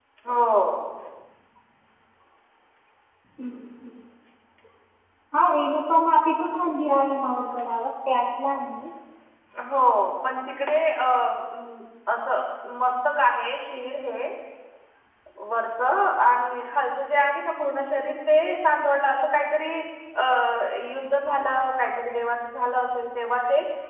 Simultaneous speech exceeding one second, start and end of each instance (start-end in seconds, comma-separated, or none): none